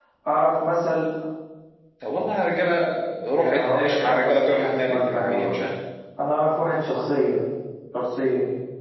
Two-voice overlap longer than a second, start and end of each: 3.3-5.7

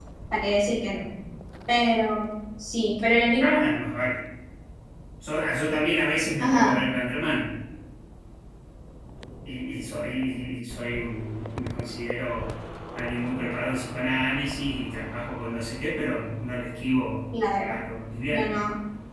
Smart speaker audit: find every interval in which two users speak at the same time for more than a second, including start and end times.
none

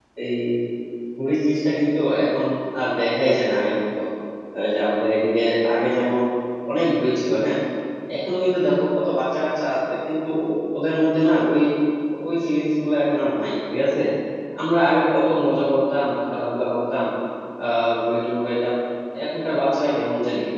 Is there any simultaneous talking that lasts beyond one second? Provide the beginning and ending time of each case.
none

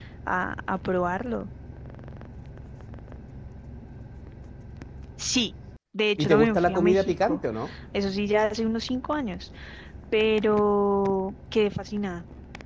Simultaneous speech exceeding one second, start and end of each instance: 6.2-7.4

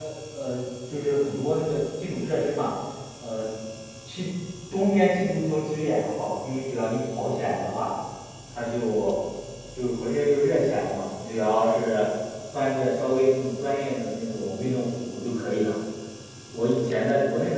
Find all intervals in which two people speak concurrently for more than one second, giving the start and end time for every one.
none

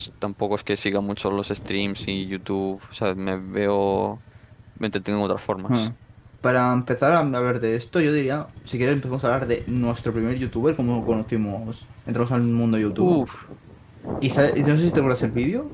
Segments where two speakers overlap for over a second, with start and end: none

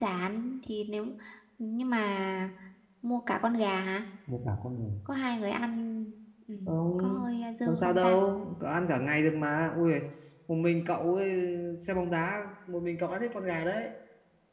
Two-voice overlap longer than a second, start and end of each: none

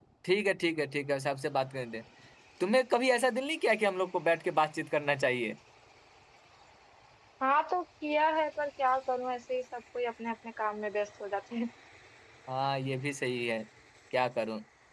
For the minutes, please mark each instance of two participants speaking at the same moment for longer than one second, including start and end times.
none

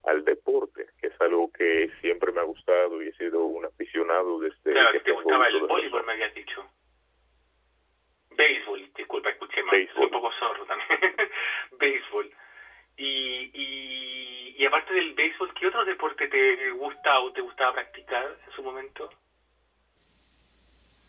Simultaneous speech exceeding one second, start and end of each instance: 4.7-6.2

